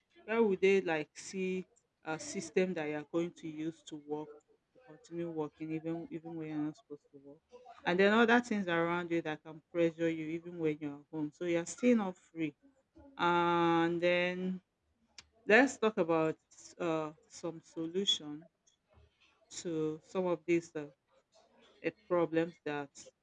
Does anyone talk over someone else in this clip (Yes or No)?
No